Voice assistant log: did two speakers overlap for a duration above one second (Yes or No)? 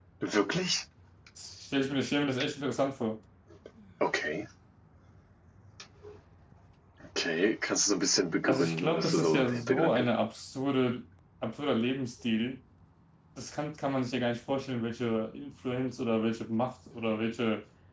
Yes